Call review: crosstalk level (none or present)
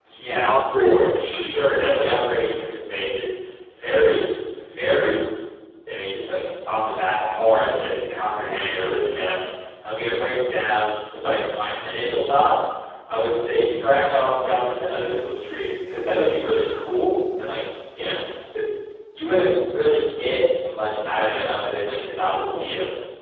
present